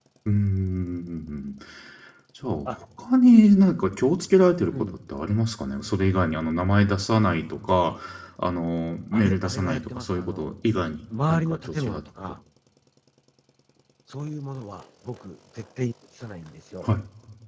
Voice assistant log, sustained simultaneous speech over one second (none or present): present